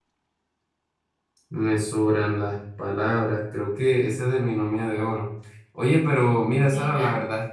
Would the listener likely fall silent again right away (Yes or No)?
Yes